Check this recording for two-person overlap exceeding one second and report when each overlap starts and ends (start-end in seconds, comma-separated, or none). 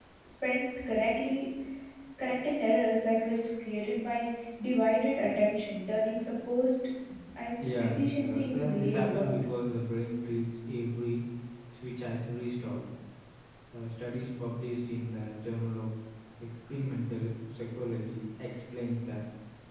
7.6-9.3